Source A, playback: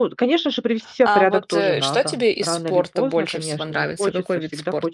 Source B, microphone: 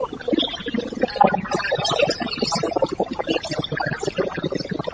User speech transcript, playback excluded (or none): none